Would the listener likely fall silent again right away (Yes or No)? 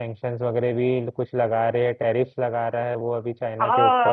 No